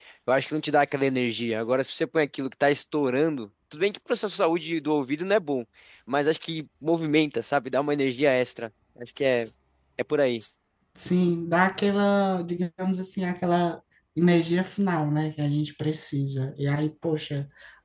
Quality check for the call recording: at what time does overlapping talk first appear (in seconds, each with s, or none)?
none